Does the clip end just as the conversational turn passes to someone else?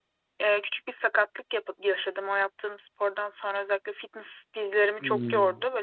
No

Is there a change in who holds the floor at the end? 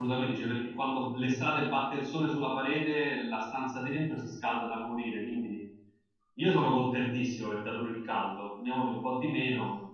Yes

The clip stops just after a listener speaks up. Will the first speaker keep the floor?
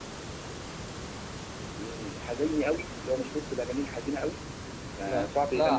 No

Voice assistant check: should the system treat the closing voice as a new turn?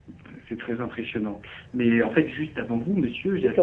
Yes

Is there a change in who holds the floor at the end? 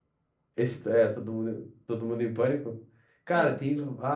No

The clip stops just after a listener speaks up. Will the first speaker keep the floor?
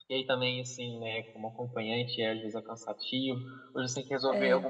Yes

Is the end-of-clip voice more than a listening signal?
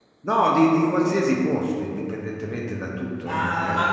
Yes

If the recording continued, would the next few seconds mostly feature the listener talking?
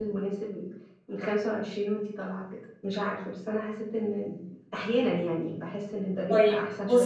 Yes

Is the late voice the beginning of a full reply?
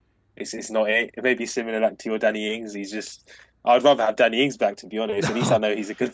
No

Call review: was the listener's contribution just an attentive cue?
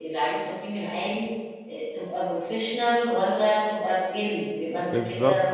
No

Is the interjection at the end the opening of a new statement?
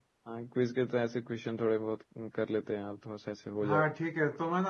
Yes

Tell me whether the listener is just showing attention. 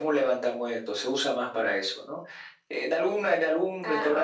Yes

